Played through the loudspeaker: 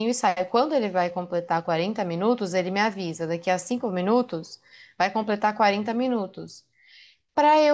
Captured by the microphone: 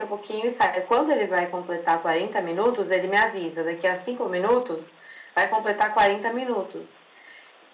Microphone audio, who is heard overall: echo only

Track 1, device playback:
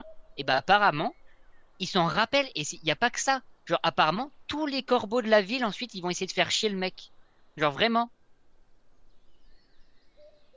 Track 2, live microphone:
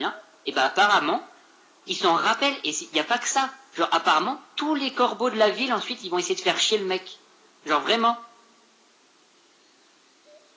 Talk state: echo only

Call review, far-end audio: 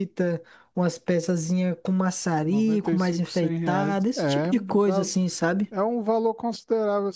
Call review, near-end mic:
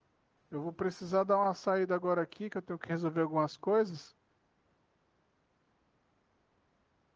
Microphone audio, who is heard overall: user only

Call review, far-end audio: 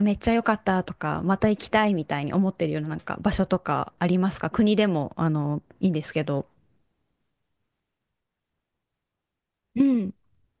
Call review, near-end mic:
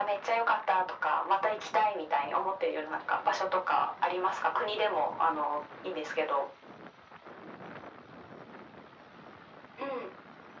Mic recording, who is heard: echo only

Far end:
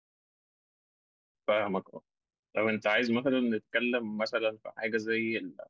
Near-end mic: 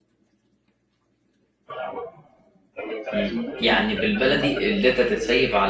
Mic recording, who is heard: both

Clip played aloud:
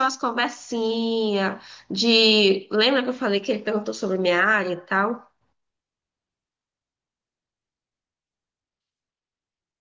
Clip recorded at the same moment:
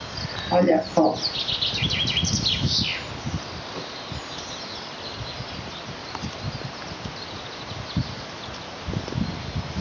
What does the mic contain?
user only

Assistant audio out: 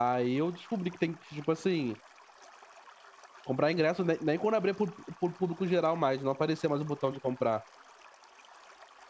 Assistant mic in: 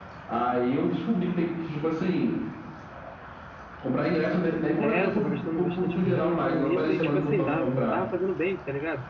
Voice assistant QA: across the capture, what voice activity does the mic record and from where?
both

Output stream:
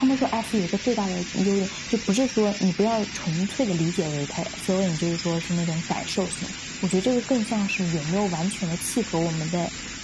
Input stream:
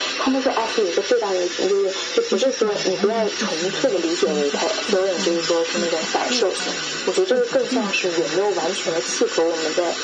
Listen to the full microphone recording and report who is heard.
both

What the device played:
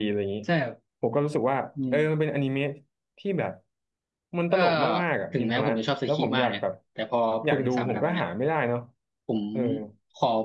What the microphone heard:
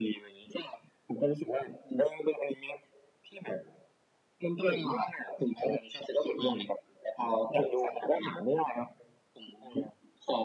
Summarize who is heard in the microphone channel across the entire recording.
echo only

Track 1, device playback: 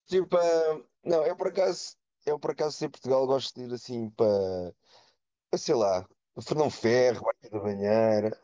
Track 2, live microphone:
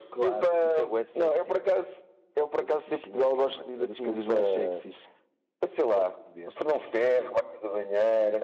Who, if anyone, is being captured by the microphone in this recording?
both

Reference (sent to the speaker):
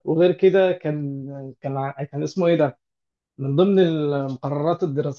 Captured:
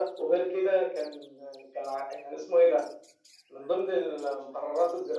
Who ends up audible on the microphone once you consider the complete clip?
echo only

